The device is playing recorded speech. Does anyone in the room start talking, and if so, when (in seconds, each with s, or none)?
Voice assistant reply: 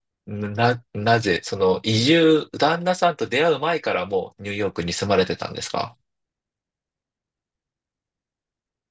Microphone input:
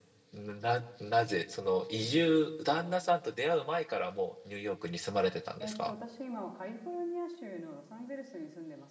5.6 s